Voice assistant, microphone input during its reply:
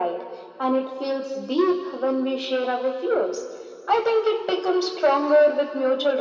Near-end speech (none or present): none